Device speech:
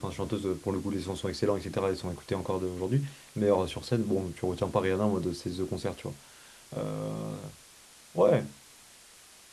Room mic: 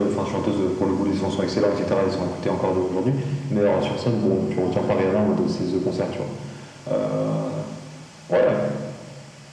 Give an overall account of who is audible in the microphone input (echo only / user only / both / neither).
echo only